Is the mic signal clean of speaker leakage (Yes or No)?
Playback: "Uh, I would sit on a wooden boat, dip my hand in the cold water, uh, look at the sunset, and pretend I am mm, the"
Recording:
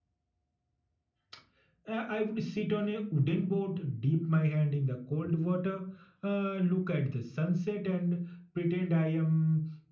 No